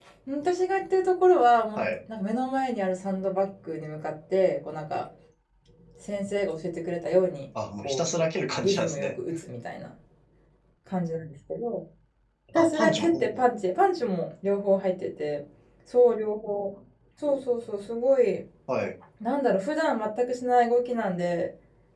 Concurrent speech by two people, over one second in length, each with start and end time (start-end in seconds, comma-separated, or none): 12.6-13.8